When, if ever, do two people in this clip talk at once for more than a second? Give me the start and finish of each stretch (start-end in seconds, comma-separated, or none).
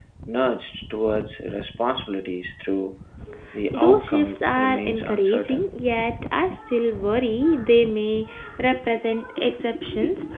3.7-5.8